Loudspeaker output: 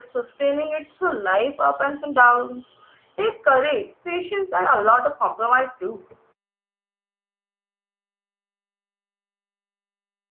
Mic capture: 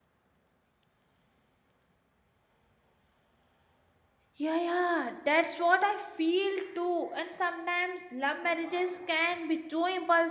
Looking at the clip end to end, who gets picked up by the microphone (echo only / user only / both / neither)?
user only